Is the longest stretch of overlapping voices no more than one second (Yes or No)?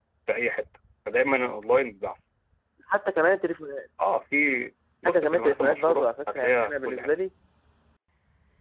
No